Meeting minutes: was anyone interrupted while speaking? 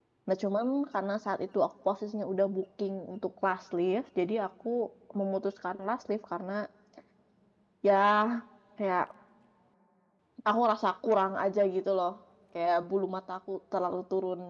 No

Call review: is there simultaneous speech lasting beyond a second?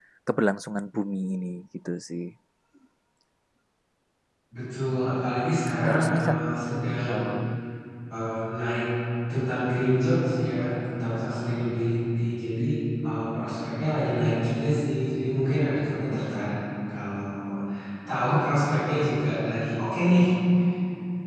No

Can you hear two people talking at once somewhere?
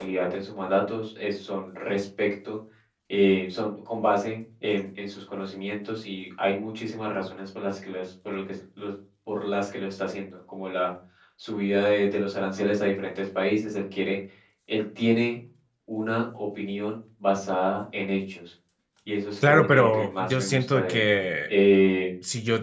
Yes, from 19.5 s

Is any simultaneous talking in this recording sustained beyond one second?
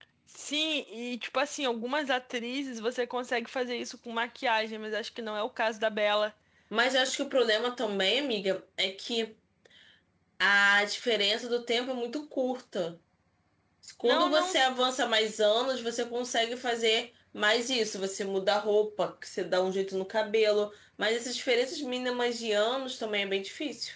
No

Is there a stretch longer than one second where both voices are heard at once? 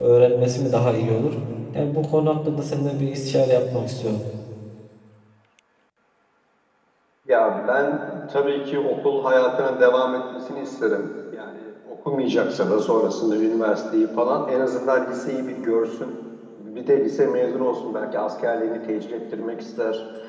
No

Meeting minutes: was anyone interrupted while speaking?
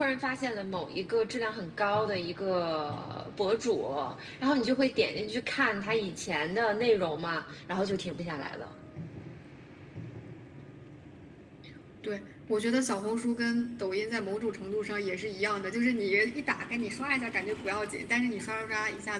No

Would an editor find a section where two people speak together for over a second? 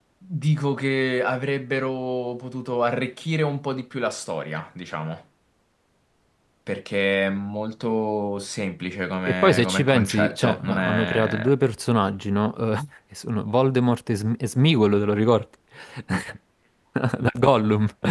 Yes, from 9.3 s

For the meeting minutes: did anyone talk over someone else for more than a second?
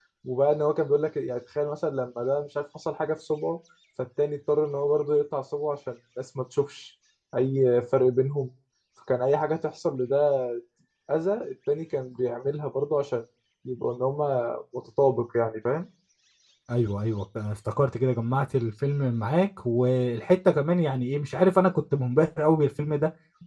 No

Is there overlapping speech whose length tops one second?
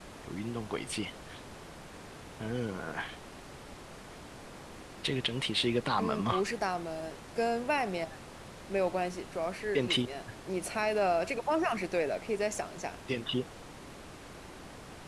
No

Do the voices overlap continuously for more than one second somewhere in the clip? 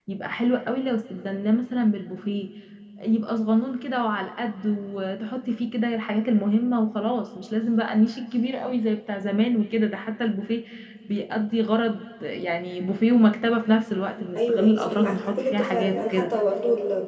Yes, from 14.4 s

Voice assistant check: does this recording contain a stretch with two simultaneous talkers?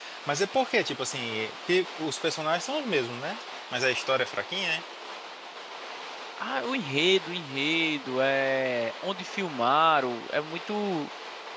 No

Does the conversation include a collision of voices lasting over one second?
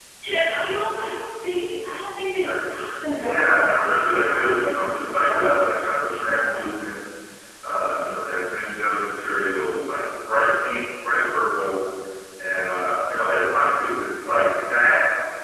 Yes, from 3.0 s

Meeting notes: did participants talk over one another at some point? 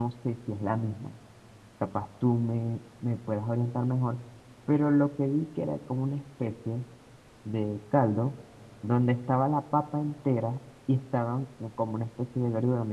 No

